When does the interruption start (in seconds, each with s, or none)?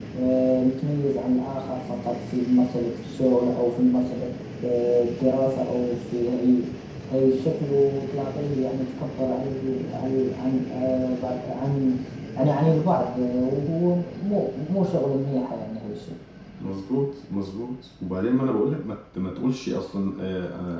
none